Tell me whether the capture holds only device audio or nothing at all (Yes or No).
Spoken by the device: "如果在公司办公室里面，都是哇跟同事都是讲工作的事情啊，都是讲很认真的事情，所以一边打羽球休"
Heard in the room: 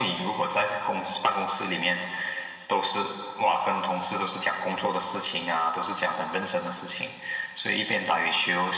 Yes